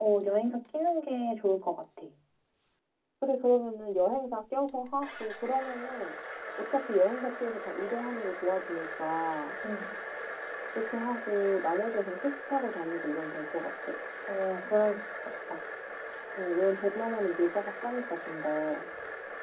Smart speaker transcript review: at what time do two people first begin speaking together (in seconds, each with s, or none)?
none